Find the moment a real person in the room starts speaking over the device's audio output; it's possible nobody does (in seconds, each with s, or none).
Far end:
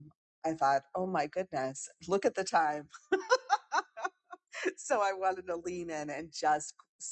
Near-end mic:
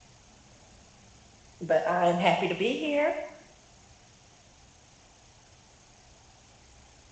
1.6 s